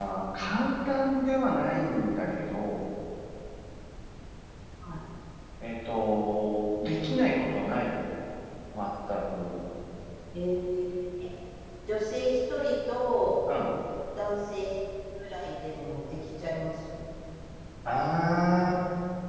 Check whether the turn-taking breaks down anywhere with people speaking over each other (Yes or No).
No